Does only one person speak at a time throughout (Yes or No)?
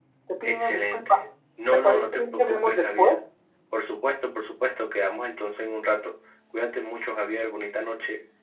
No